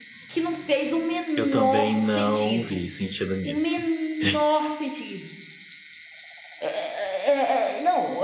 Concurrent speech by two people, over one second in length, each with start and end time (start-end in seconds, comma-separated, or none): 1.4-2.8